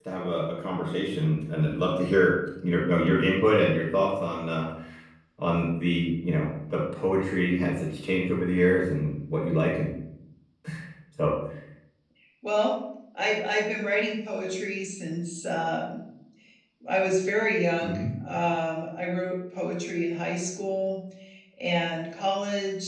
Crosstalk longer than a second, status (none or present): none